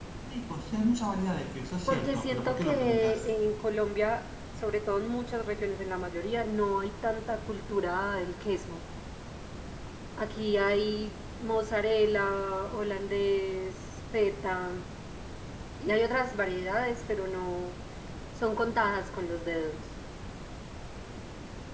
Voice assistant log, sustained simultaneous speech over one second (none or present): present